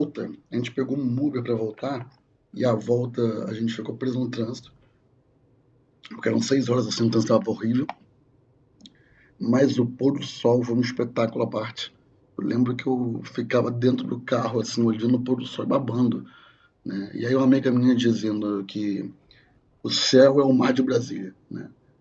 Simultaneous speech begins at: none

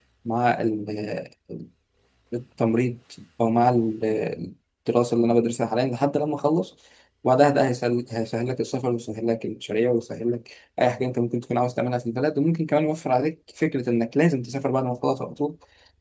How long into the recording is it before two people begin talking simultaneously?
none

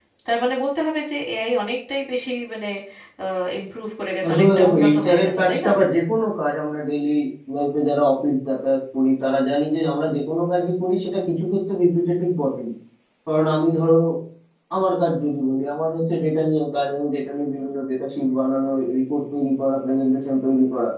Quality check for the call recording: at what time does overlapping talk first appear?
4.3 s

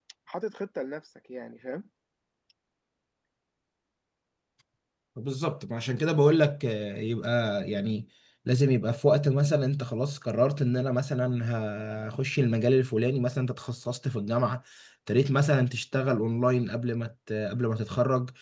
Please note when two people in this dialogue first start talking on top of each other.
none

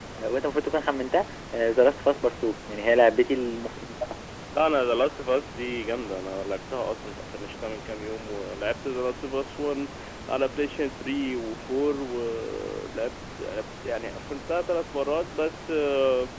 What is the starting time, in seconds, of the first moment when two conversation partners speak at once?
none

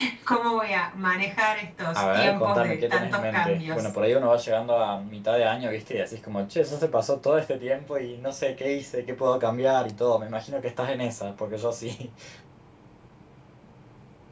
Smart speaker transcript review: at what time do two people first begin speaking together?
1.9 s

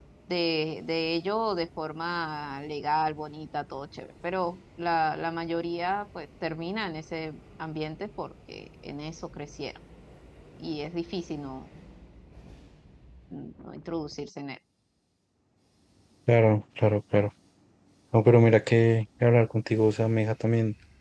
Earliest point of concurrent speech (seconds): none

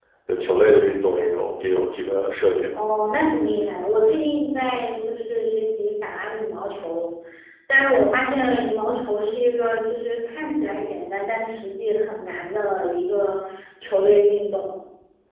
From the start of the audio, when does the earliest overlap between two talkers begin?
none

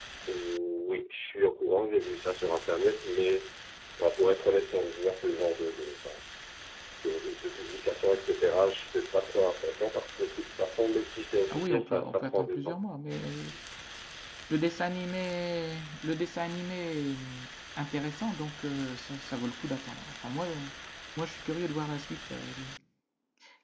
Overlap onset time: 11.5 s

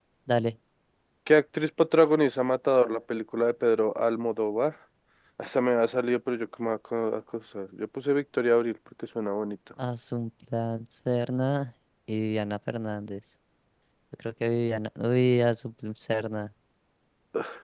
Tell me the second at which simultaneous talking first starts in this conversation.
none

